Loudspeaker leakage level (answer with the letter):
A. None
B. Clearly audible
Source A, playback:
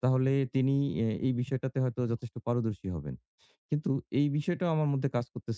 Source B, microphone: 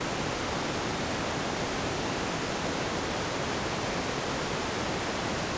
A